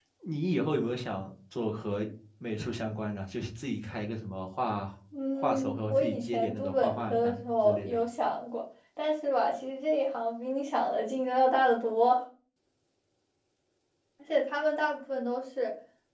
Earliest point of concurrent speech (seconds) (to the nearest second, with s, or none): 5 s